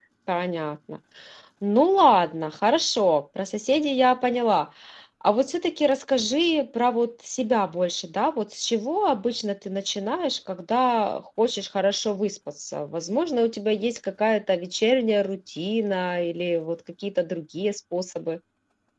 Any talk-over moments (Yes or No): No